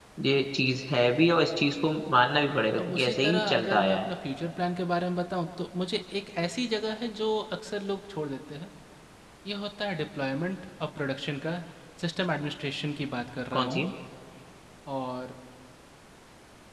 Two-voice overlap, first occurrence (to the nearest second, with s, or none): 3 s